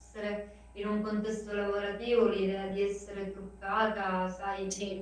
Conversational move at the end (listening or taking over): listening